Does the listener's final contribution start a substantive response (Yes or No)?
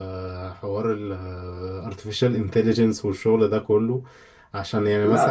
No